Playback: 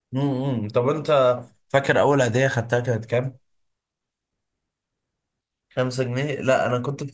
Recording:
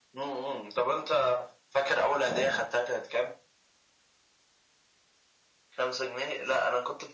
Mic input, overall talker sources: both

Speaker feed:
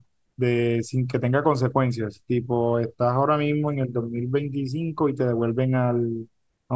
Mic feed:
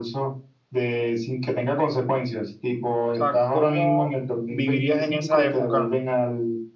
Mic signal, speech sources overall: both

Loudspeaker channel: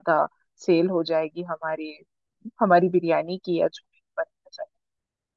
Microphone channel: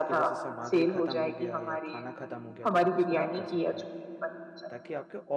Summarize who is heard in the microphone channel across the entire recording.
both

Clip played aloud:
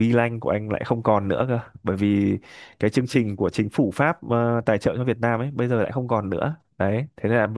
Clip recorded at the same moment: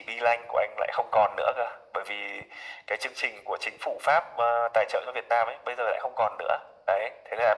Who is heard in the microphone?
echo only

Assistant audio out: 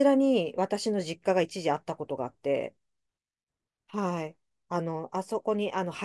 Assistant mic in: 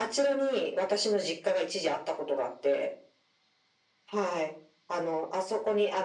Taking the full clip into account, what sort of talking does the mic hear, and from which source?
echo only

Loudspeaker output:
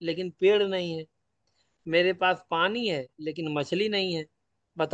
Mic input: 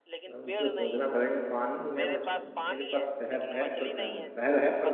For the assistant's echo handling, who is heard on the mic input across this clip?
both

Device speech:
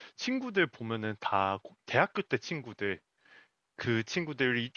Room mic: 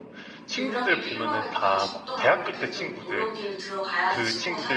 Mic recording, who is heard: both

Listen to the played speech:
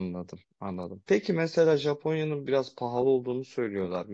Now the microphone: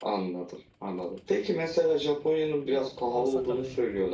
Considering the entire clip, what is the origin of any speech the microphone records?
both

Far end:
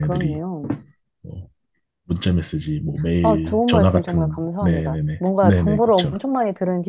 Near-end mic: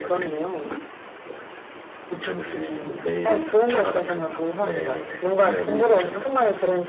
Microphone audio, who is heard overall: both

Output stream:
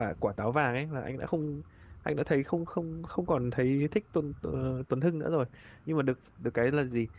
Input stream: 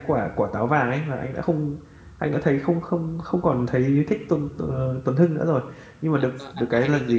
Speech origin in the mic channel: both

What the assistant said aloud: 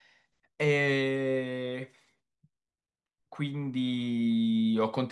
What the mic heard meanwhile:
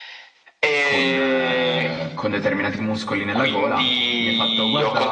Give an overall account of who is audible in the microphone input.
both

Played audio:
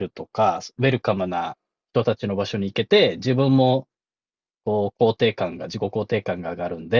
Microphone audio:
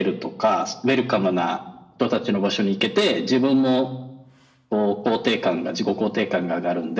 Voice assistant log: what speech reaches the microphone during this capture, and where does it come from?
echo only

